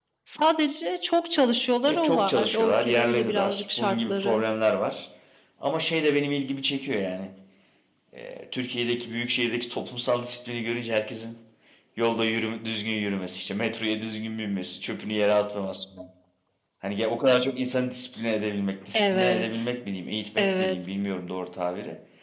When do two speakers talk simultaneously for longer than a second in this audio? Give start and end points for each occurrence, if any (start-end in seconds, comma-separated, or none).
1.9-4.4